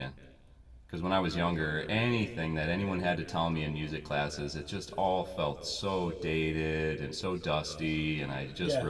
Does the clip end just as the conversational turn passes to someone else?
No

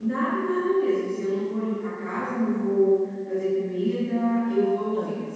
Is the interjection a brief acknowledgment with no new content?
Yes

